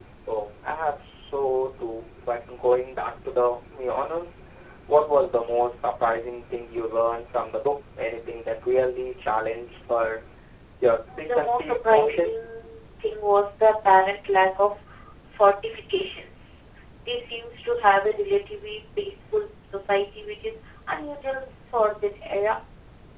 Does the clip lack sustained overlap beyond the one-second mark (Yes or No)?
No